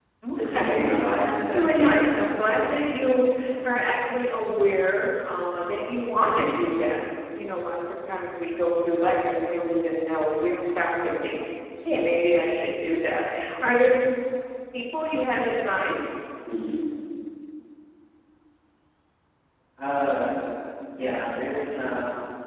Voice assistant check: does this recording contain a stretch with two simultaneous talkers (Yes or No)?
Yes